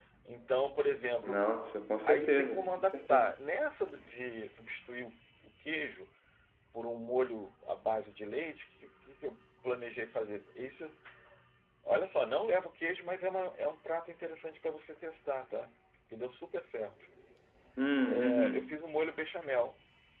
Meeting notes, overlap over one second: present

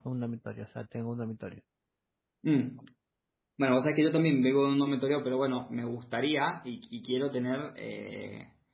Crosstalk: none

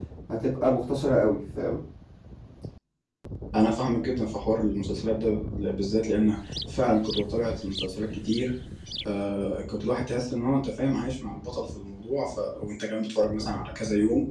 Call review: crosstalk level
none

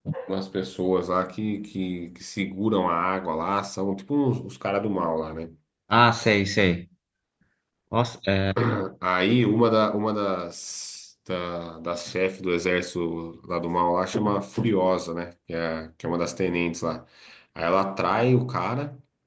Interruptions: none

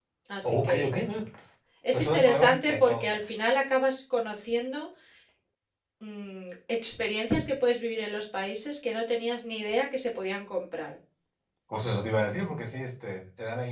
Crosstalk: present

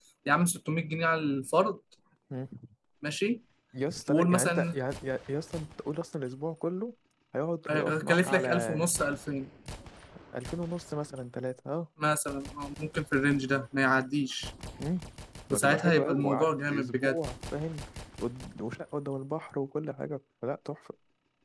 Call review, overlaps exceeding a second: present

